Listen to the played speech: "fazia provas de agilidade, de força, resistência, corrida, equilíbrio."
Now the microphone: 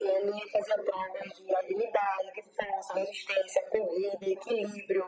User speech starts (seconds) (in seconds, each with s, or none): none